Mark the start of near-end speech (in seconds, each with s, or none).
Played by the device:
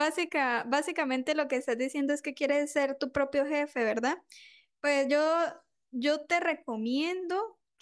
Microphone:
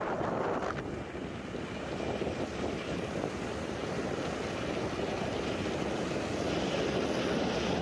none